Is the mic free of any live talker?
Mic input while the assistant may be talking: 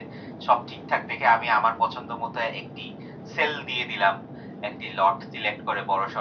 Yes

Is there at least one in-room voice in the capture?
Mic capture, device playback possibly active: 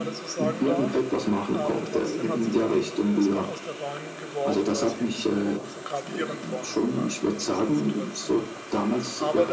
Yes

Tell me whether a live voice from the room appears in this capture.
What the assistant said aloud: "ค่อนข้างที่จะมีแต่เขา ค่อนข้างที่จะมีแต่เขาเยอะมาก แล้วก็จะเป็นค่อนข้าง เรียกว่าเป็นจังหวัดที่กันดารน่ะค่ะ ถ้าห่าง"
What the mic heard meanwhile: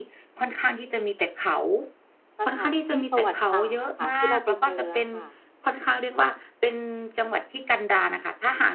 Yes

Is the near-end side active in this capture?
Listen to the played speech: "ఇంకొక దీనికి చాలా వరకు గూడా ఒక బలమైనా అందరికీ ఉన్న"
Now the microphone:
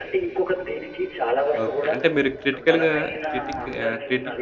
Yes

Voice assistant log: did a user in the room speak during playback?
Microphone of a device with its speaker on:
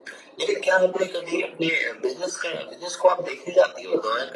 No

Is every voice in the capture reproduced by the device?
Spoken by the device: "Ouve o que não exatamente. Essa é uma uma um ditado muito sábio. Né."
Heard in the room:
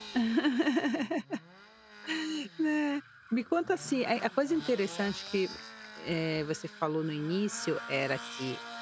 No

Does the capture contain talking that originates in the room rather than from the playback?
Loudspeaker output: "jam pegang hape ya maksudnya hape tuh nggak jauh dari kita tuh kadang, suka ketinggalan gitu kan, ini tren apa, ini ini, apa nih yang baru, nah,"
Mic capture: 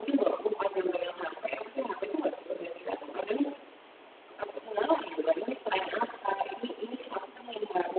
No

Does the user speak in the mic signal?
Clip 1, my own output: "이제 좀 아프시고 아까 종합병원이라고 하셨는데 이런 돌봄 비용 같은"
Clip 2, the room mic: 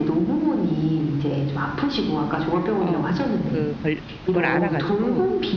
Yes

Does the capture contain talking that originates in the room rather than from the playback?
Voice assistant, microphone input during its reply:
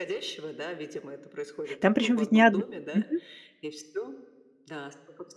Yes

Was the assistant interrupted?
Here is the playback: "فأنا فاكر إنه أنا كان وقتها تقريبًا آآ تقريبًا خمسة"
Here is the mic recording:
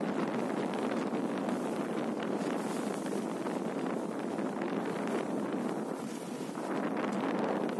No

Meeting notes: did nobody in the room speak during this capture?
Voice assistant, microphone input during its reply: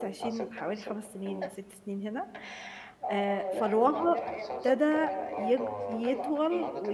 No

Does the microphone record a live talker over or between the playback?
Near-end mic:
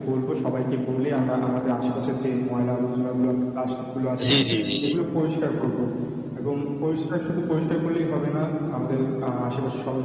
Yes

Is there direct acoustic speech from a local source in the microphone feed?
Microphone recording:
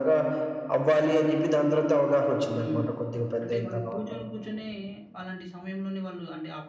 Yes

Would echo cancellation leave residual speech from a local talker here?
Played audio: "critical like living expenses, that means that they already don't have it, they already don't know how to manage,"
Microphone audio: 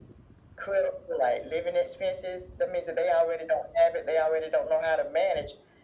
No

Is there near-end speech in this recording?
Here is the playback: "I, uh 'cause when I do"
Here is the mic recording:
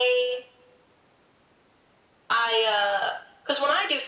No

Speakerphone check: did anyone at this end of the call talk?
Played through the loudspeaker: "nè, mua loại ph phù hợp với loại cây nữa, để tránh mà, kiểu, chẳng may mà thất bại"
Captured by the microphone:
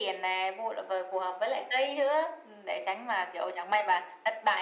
No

